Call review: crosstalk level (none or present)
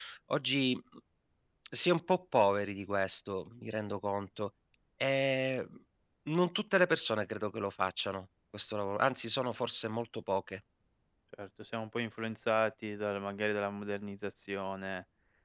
none